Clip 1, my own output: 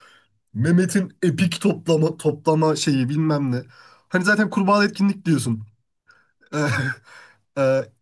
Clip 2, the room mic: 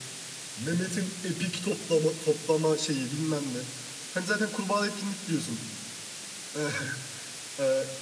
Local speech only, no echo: none

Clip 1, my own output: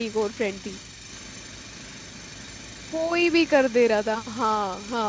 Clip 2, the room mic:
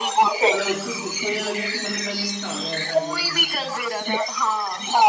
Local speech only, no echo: मतलब उसको उसको ये लगे कि मतलब मैं लेट ना हो जाऊं ऐसा मतलब कि वो

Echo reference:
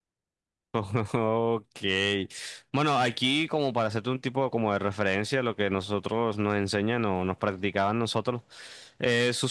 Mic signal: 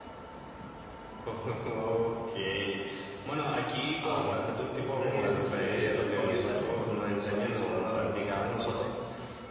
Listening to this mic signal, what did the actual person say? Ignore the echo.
Am, eh, ¿tú me habías dicho que el vóley playa mm, lo habías probado alguna vez o no?

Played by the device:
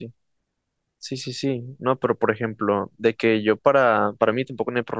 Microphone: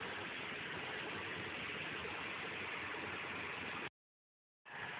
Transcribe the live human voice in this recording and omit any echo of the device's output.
none

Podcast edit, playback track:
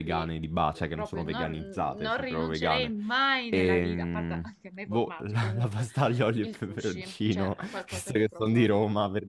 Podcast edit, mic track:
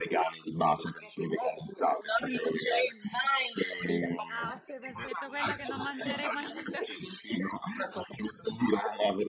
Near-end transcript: Ah, ok, perfetto, quella che non mangerei mai nella vita.

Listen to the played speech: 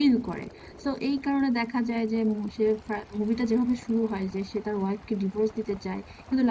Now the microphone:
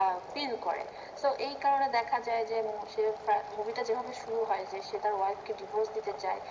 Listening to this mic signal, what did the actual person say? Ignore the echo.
none

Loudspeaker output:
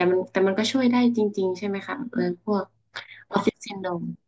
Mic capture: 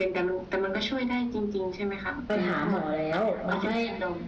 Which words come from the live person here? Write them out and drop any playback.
ไปหาหมอแล้วมันไม่

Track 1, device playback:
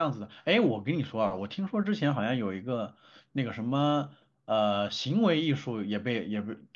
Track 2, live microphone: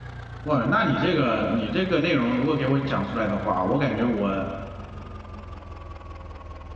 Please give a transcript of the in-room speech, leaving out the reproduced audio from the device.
哇，那你这个你这个内容如果给我讲出来的话，我感觉我

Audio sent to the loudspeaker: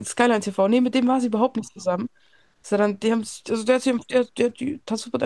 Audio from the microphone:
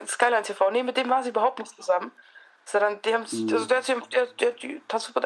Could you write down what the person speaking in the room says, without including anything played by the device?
Mhm.

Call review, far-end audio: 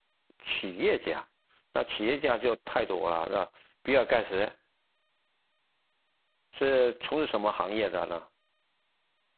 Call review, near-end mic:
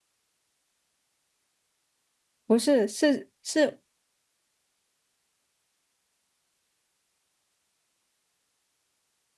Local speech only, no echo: 不是是是，

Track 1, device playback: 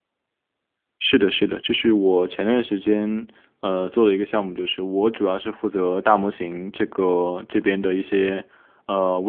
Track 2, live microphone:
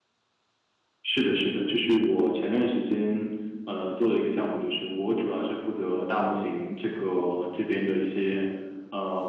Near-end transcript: none

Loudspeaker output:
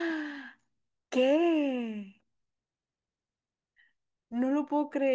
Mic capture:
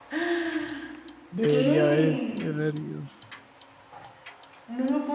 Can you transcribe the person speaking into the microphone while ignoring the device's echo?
Debería haber, haber ido.

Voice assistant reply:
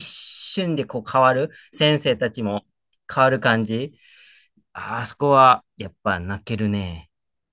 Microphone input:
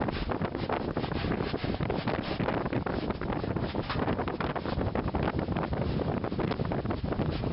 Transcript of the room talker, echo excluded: none

